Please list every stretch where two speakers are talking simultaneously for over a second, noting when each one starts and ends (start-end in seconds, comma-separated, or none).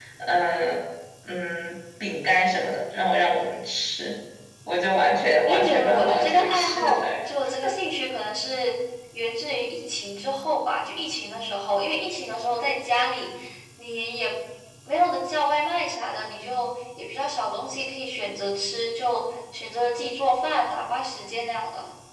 5.4-7.0